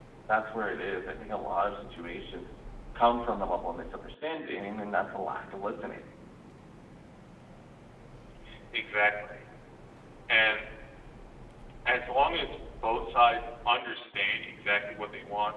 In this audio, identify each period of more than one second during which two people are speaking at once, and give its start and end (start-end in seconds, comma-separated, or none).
none